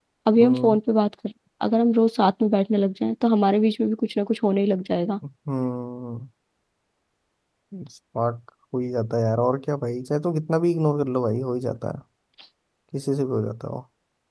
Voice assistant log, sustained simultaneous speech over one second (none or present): none